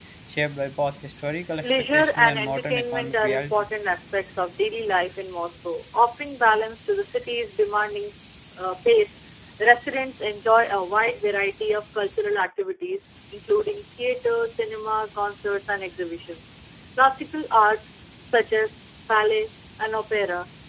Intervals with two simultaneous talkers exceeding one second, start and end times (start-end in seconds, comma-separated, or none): 1.6-3.6